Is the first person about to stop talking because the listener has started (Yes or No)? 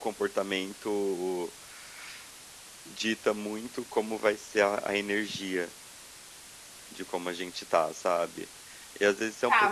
Yes